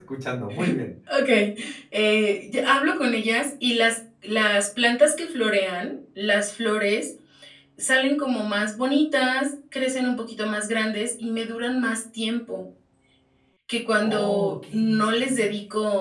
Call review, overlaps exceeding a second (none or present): present